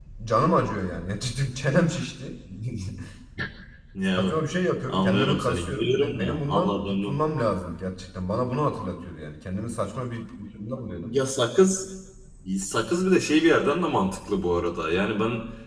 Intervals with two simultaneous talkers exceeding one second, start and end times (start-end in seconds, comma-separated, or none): 4.9-7.2